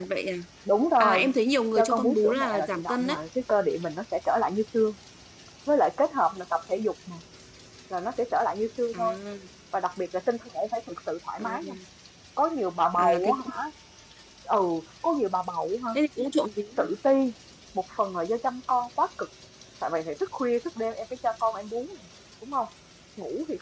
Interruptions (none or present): present